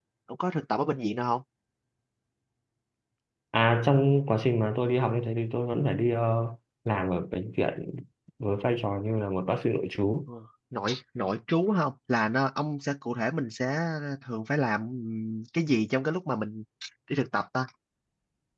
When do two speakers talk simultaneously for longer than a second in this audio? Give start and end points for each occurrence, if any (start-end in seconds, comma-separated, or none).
none